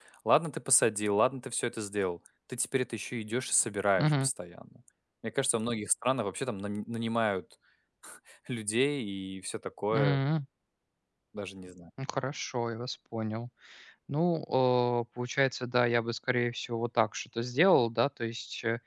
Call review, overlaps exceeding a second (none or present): none